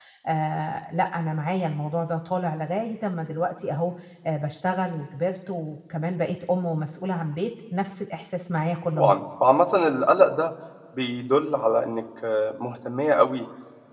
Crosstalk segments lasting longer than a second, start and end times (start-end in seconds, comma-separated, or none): none